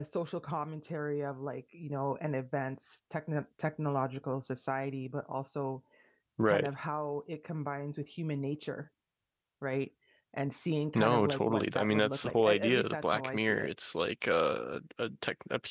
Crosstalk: present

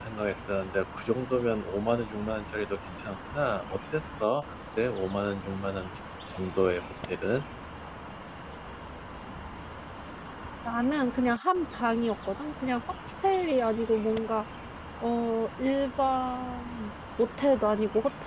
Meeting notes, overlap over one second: none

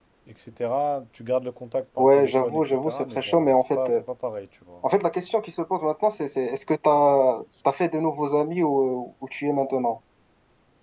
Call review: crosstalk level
present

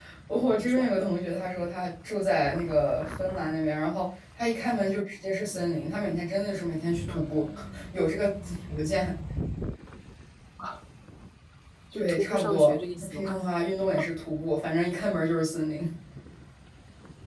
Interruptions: present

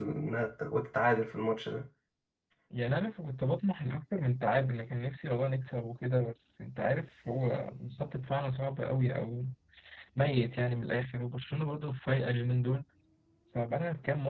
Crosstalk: none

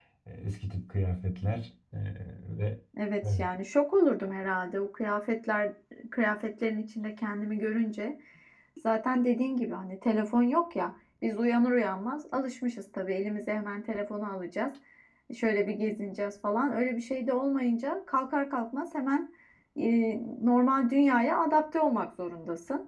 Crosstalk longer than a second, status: none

